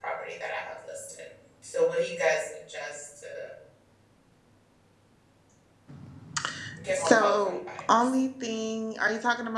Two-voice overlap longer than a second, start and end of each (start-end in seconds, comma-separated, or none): 6.9-8.1